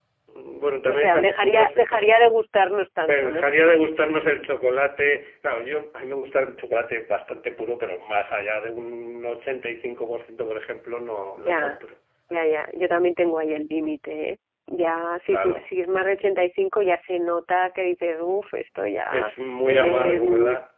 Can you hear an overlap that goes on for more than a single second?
Yes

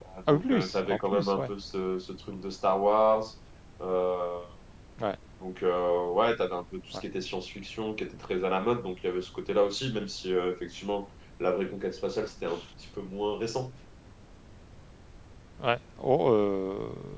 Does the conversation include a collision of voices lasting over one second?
Yes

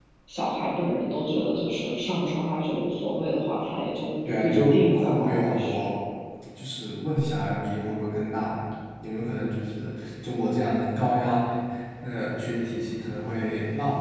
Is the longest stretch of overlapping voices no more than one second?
No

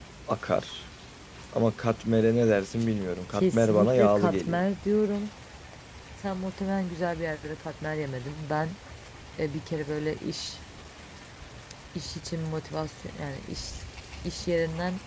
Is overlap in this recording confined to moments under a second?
No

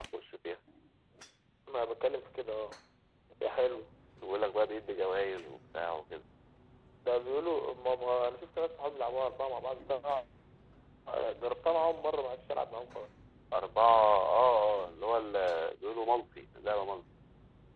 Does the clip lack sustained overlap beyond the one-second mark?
Yes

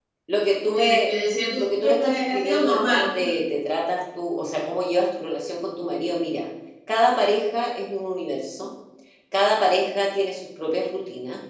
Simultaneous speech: Yes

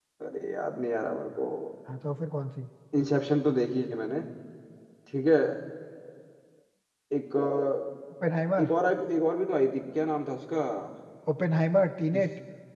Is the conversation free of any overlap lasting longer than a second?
Yes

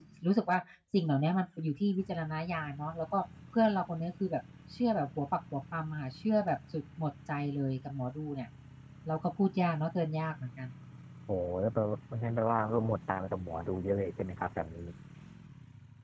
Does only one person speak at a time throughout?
Yes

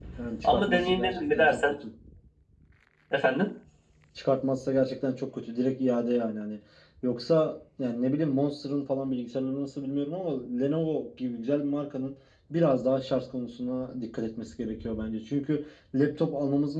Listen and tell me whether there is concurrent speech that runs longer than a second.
Yes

